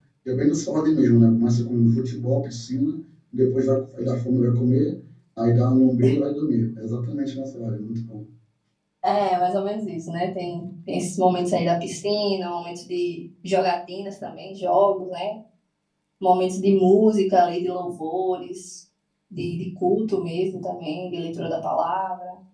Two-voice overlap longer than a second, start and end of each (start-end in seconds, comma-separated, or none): none